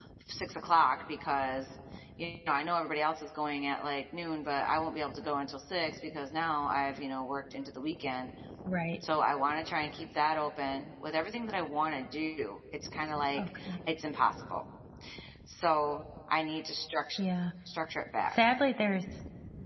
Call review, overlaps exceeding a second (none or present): none